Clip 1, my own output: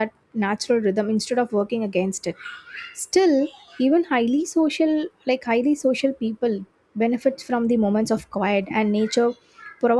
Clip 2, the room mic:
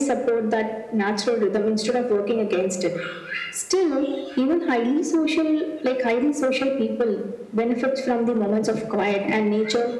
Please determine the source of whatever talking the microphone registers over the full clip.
echo only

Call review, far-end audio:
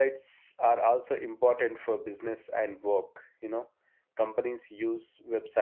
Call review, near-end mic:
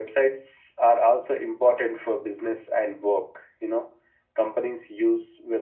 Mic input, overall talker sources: echo only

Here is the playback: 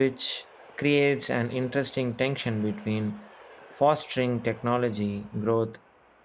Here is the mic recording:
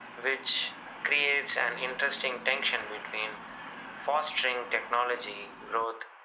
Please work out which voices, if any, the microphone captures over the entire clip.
echo only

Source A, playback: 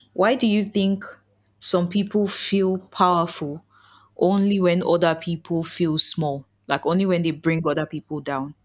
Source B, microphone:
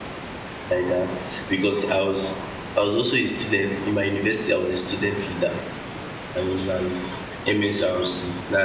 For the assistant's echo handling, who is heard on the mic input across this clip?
user only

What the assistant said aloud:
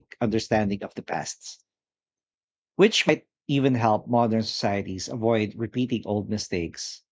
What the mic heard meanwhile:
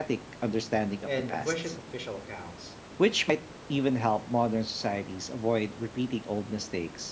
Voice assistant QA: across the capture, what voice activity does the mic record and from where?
both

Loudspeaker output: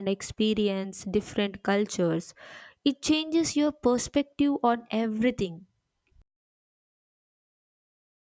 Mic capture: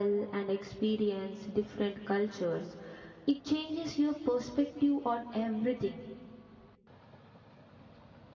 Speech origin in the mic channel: echo only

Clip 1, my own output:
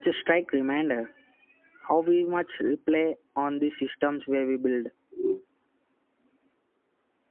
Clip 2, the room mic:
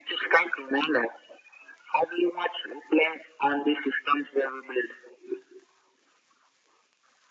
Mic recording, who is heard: echo only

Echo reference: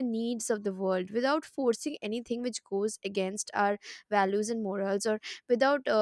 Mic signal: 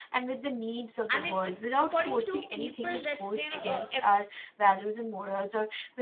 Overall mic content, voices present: both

